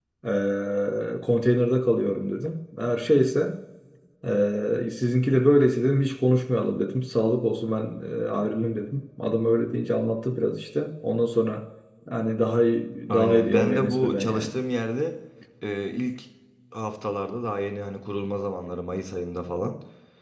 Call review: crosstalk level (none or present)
present